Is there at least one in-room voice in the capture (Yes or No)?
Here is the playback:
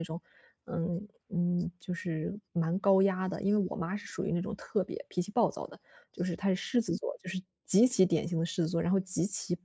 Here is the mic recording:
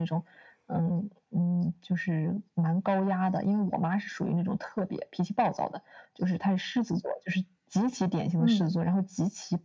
Yes